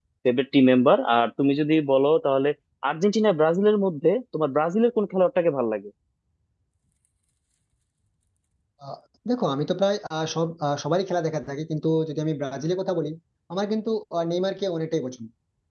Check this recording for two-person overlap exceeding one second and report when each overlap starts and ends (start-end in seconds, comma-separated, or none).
none